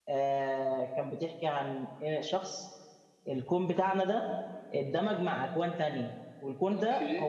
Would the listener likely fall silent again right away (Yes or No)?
Yes